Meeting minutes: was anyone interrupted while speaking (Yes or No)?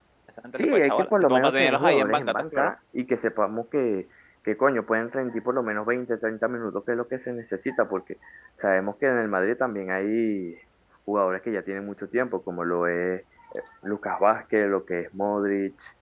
Yes